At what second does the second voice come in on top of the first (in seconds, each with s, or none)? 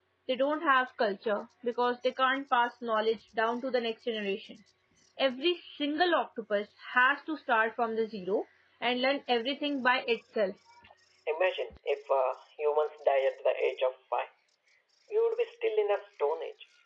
none